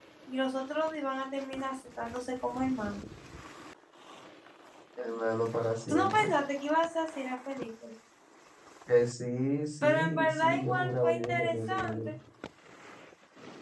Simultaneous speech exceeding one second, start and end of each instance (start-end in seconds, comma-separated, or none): 9.8-12.1